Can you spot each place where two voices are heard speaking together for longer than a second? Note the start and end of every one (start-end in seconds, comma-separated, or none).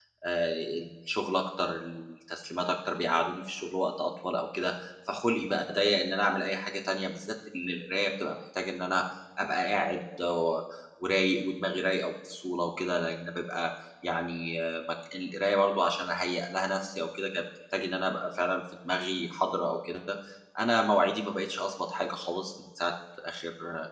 none